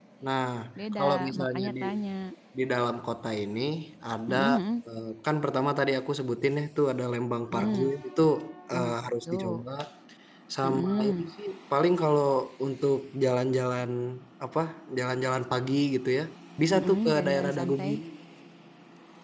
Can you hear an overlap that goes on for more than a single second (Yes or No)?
Yes